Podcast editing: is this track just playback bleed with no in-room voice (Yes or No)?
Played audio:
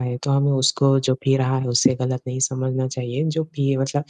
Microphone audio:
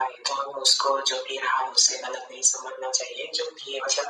Yes